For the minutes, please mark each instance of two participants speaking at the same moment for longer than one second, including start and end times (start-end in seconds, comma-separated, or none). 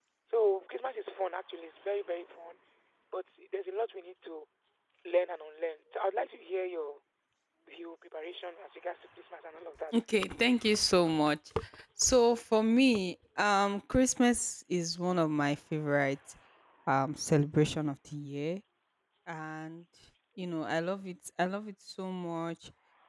none